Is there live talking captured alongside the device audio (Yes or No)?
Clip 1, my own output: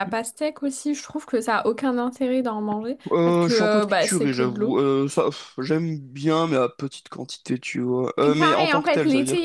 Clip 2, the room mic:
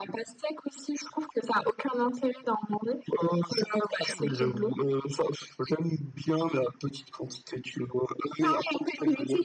No